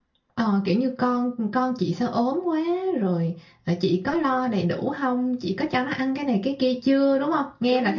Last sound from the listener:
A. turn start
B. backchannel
A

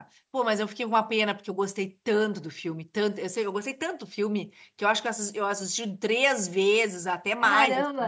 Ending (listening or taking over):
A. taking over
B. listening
B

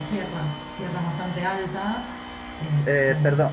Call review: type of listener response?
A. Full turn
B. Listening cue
A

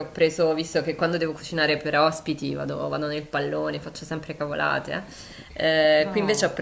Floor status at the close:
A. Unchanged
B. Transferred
A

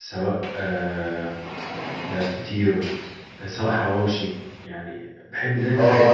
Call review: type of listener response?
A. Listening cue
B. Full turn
B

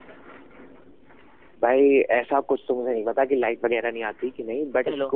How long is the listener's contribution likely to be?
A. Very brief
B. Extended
A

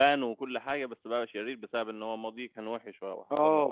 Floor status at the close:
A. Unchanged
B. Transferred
B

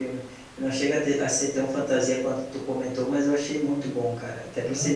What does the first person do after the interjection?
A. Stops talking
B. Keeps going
B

